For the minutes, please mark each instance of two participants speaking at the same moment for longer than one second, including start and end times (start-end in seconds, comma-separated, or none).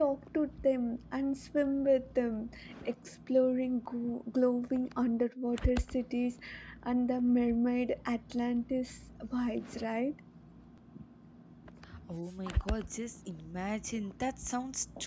none